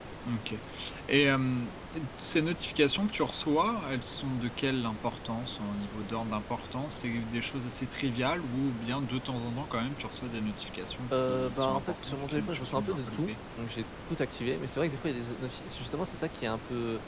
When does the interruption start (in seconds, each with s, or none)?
11.1 s